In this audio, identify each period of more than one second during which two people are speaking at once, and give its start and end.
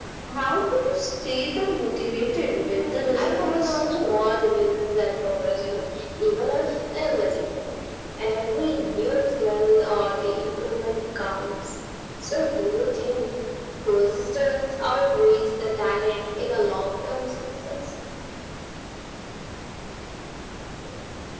2.6-4.2

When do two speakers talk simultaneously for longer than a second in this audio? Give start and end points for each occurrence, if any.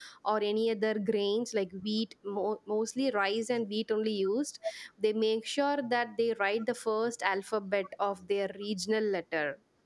none

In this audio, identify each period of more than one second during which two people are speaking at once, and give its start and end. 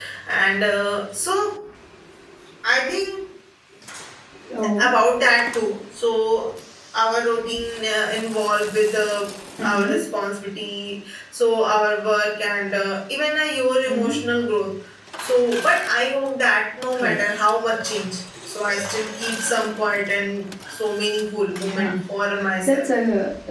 none

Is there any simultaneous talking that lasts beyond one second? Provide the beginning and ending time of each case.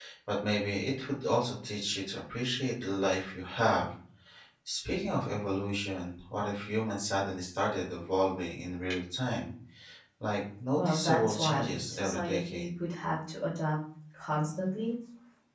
10.8-12.7

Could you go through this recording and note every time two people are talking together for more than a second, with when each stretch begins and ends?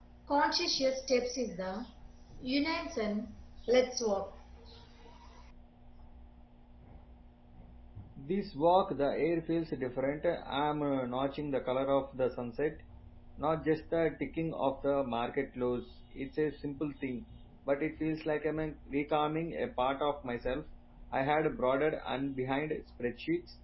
none

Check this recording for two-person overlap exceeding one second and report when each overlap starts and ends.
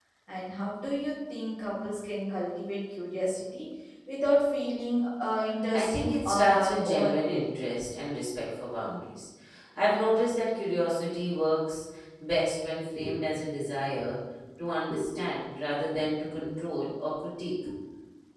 5.7-7.6

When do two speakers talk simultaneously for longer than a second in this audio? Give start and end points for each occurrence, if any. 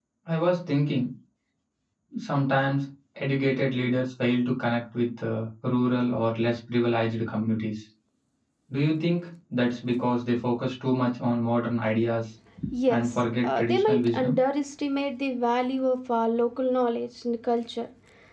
12.9-14.4

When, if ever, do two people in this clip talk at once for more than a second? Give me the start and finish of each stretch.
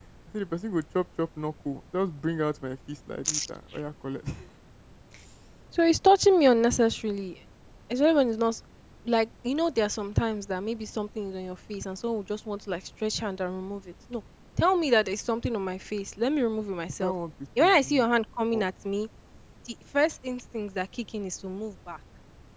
none

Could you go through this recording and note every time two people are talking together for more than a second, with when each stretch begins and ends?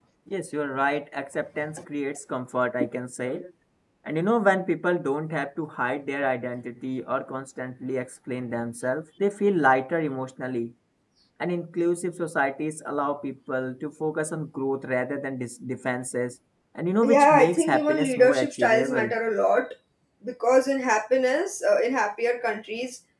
17.0-19.1

